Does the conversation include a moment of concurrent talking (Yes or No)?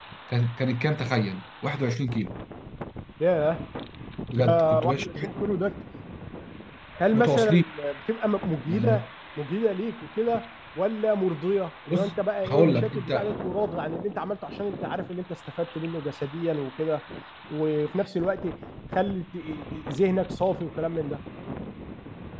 Yes